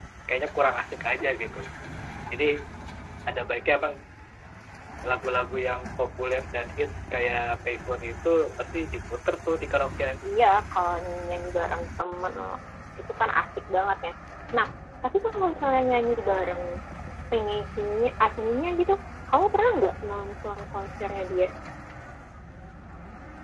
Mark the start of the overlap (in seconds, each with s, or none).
none